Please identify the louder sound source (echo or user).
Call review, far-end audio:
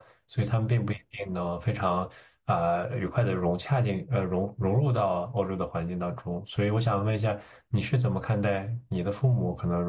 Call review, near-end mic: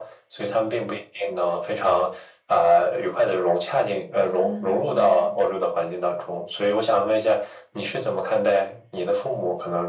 echo